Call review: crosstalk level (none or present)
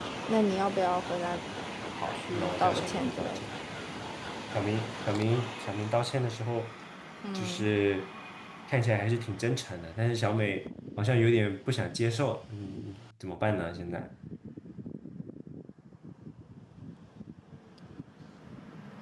present